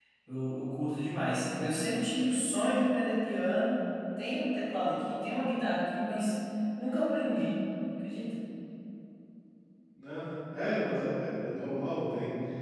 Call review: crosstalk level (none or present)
none